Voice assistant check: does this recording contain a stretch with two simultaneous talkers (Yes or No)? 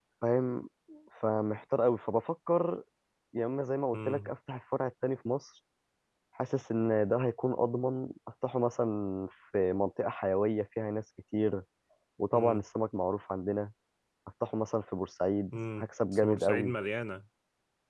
Yes